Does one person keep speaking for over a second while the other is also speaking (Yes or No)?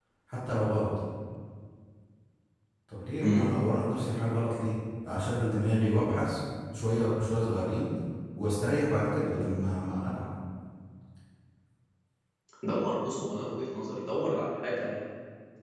No